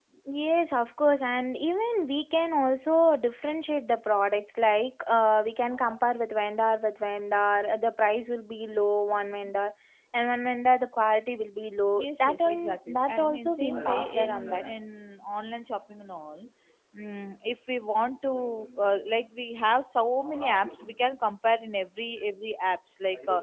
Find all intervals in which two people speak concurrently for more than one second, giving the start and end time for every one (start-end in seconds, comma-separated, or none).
12.0-14.6